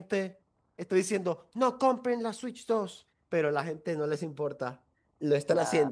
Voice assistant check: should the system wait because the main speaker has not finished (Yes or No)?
Yes